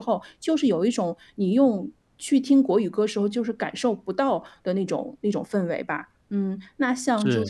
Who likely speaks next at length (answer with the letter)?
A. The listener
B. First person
B